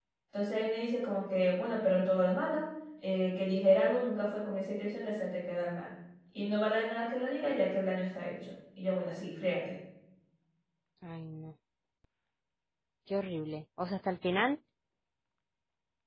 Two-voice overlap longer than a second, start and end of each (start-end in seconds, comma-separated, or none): none